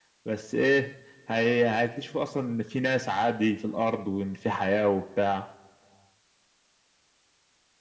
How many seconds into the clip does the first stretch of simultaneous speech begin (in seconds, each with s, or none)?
none